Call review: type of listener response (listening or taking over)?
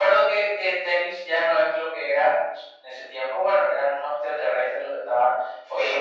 listening